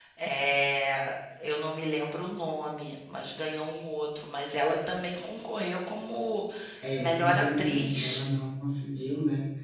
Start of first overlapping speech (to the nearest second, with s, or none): 7 s